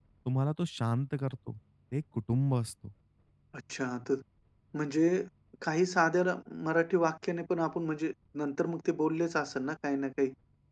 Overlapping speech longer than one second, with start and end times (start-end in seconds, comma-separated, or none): none